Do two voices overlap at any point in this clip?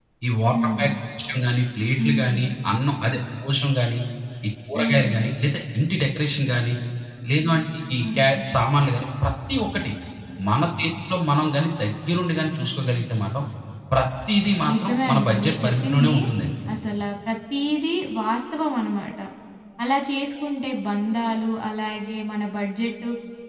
Yes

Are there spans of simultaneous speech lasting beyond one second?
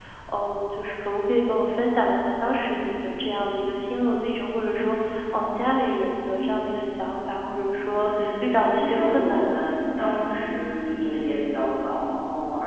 Yes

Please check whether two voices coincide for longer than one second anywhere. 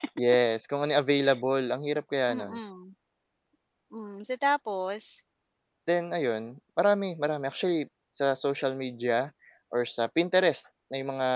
No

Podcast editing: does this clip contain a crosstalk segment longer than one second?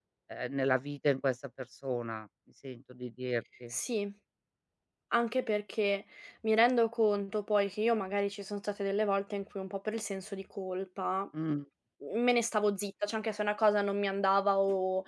No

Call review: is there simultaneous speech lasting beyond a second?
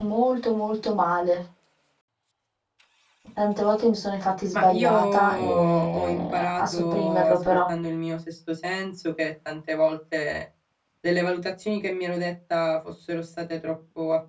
Yes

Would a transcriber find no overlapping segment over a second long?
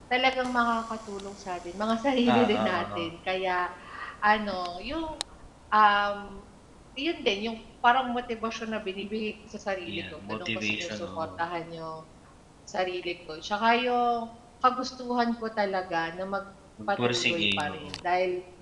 No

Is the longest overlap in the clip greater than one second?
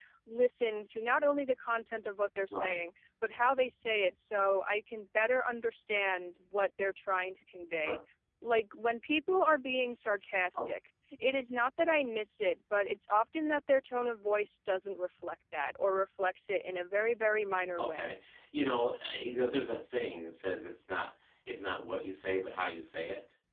No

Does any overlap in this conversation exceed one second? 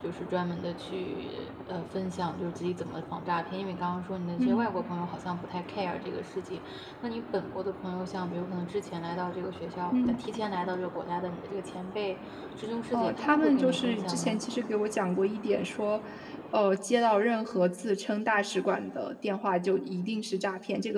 Yes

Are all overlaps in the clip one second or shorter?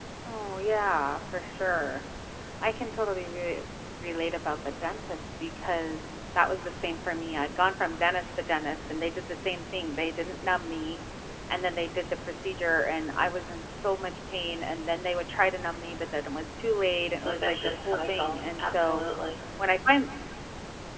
No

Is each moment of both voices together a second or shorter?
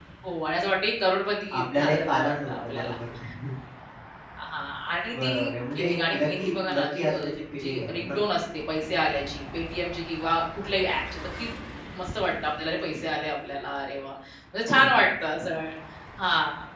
No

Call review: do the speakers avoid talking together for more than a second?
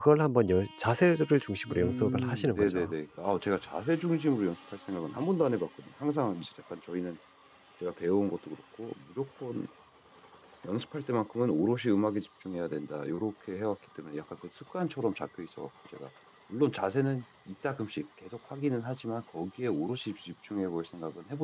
No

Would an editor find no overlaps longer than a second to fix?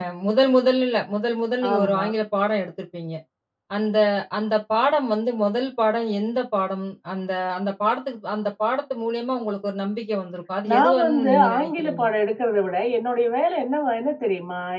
No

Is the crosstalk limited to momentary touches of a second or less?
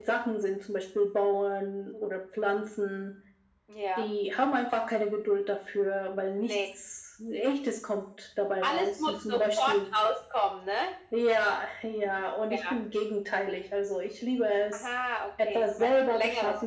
No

